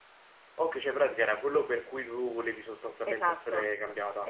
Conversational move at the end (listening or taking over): taking over